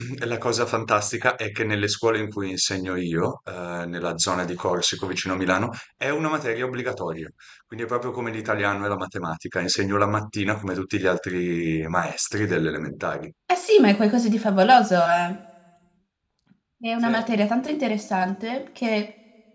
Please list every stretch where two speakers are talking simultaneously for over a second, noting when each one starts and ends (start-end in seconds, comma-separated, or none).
none